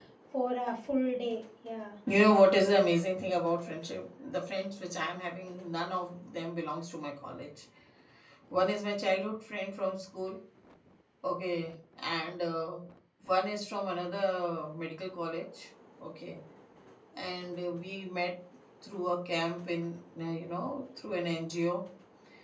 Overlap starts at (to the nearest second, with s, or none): none